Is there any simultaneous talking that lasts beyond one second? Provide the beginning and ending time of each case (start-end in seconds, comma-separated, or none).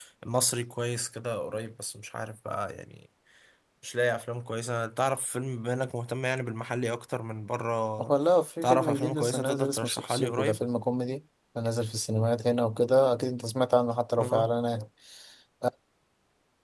8.6-10.6